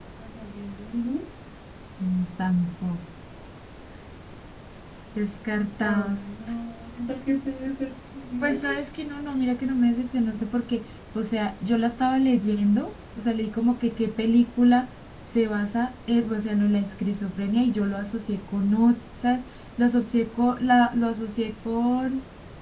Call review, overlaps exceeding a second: none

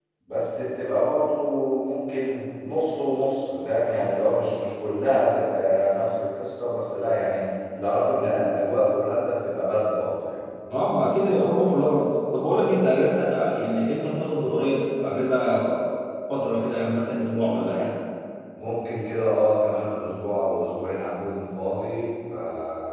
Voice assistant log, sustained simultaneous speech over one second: none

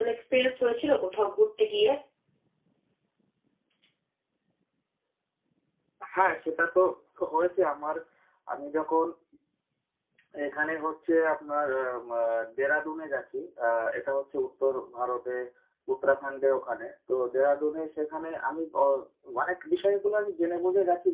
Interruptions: none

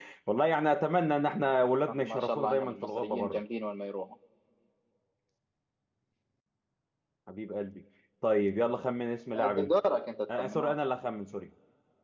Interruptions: present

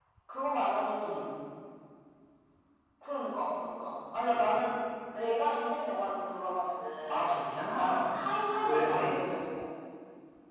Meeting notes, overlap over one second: none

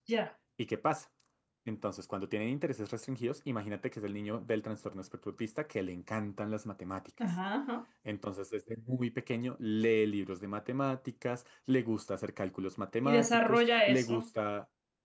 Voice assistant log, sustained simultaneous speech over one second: present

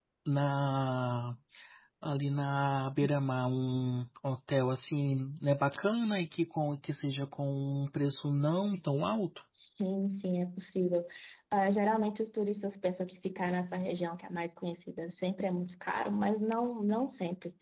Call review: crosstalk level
none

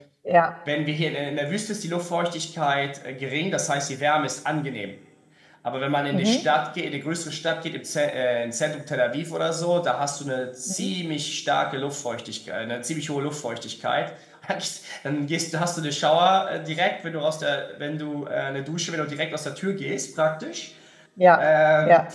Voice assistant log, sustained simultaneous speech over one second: none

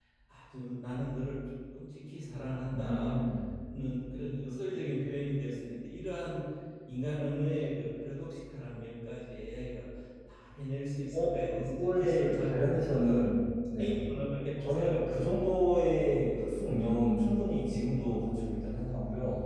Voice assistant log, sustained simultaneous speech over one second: present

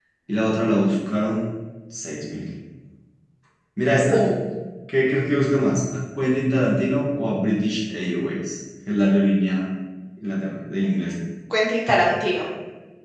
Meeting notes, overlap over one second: none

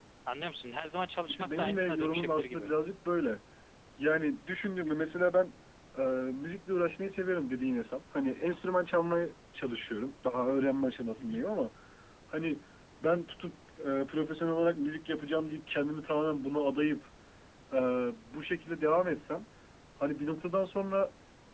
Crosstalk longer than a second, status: present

